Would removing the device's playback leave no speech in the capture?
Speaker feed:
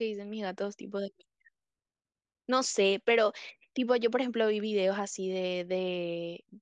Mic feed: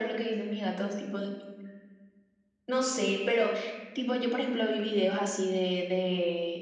Yes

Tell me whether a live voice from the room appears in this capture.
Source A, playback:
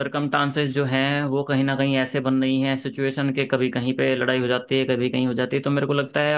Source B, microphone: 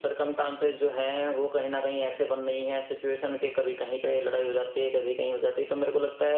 No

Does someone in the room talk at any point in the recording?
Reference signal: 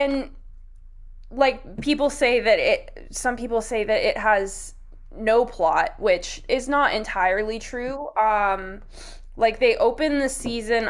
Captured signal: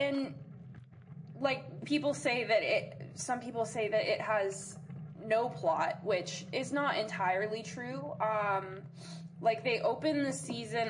No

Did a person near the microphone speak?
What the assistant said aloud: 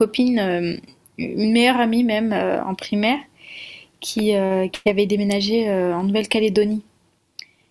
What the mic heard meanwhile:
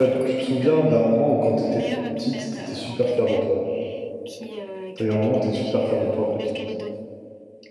Yes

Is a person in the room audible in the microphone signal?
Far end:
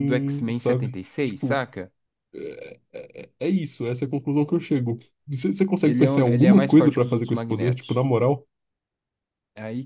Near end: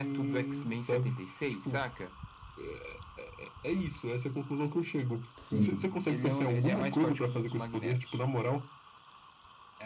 Yes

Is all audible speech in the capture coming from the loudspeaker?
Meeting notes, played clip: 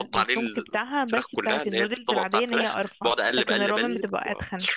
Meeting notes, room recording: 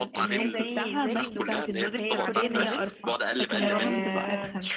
No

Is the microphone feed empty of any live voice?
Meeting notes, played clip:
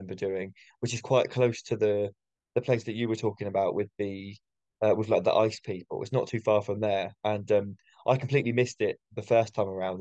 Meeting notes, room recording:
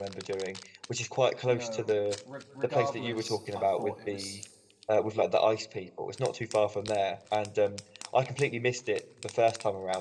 No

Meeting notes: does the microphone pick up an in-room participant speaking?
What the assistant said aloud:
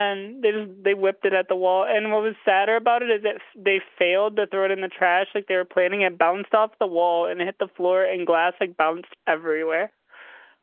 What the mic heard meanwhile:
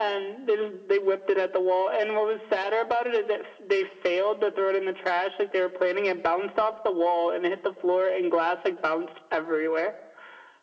No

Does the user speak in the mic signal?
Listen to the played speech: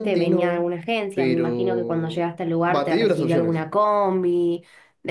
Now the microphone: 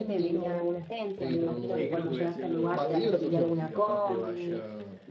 Yes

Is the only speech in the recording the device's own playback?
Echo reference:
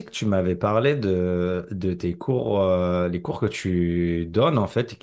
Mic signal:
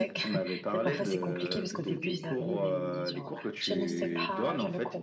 No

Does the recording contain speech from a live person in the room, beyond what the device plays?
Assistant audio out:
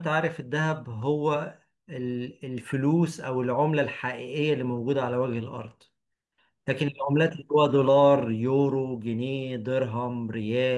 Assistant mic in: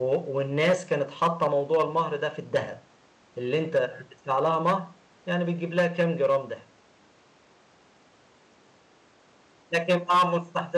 Yes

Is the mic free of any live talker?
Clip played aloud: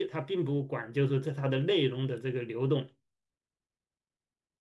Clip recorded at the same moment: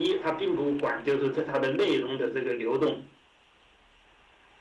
Yes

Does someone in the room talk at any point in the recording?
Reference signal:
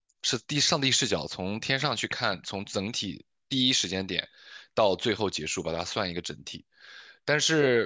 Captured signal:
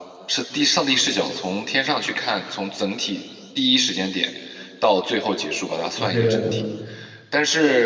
Yes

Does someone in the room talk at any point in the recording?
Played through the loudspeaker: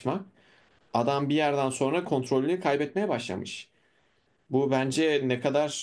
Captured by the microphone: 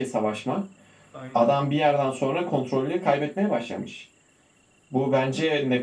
Yes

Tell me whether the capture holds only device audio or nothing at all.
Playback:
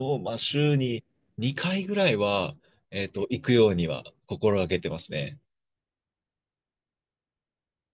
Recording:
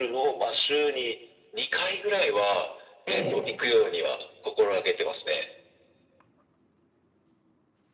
No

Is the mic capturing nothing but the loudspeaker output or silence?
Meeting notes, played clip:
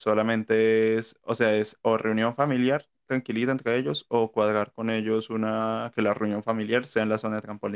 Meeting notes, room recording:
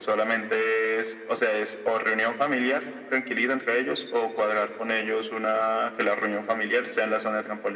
Yes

